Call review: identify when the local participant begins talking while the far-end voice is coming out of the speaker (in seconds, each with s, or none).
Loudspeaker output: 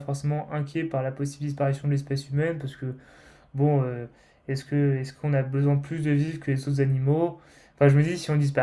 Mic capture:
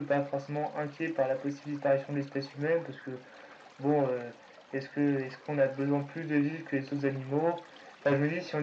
none